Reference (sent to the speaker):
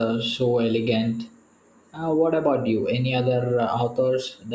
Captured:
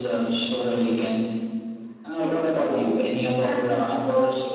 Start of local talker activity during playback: 2.0 s

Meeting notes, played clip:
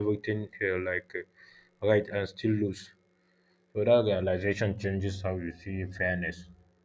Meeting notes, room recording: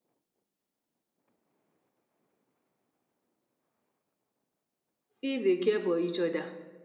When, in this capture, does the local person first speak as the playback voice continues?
5.2 s

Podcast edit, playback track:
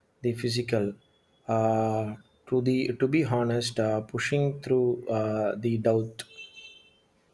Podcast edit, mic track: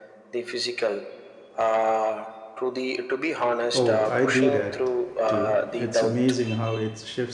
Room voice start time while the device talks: 3.7 s

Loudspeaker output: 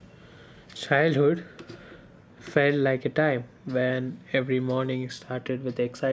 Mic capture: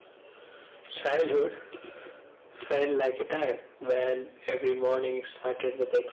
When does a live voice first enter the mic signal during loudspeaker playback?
none

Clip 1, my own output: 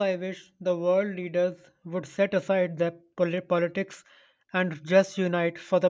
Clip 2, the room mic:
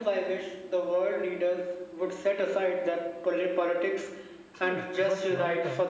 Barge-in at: 4.5 s

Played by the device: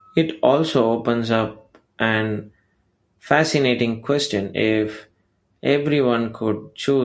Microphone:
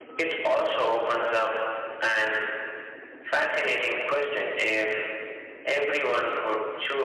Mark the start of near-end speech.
none

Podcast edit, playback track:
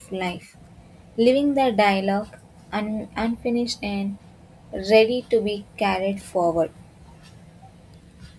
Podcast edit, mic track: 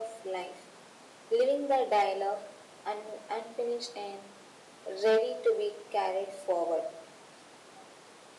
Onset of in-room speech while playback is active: none

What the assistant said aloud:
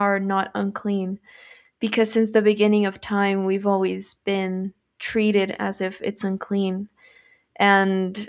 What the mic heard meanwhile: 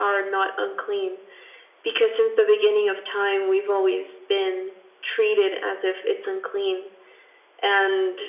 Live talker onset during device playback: none

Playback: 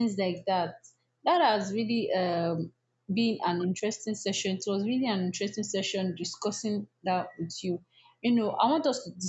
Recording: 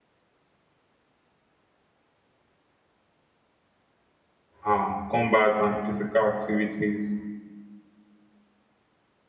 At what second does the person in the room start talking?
4.6 s

